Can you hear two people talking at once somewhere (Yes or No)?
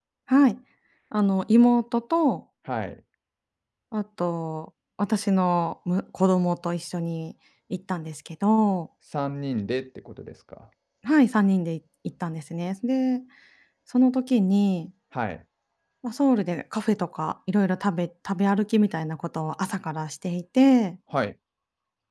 No